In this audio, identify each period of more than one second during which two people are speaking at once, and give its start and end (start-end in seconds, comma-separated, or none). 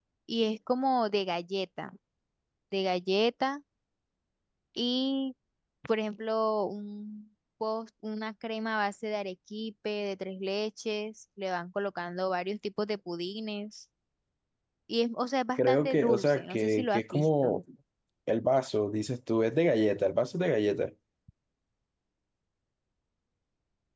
15.6-17.5